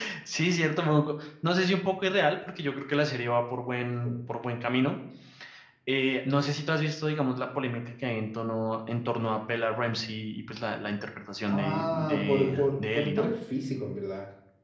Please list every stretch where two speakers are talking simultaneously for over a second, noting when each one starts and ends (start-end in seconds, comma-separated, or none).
11.5-13.3